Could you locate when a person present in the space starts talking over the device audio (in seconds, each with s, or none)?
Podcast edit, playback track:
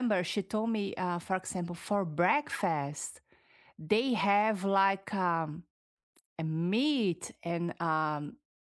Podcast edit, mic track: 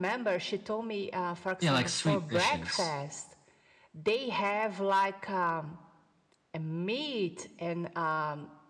1.6 s